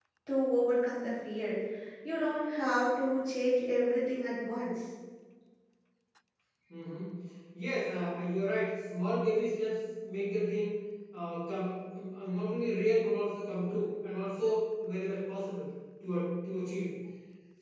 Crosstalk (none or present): none